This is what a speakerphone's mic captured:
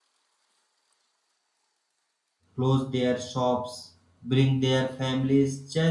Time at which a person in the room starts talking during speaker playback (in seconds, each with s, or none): 2.5 s